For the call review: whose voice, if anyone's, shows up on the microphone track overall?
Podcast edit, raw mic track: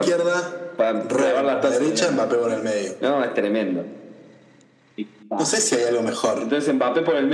echo only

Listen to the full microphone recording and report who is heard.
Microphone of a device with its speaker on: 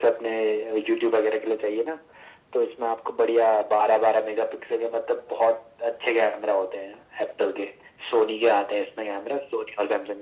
echo only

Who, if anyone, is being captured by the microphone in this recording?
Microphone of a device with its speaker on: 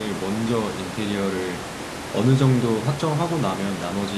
user only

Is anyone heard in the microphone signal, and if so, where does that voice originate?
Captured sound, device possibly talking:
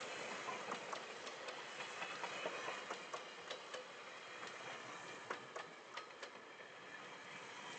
neither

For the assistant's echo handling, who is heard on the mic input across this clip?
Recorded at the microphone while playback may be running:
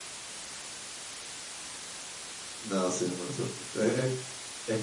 user only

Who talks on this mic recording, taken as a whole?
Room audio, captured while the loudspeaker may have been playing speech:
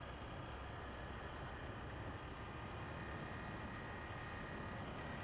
neither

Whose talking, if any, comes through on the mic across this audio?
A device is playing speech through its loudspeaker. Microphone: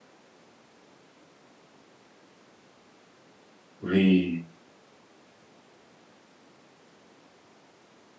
user only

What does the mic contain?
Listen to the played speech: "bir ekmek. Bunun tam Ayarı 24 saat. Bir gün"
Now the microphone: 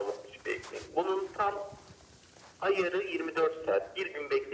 echo only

